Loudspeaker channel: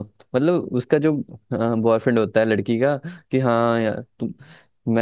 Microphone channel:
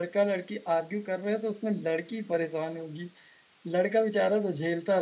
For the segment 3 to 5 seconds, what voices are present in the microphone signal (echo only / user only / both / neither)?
user only